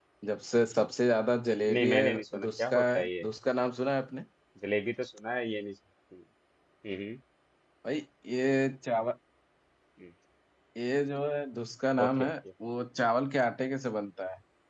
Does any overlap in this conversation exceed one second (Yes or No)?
Yes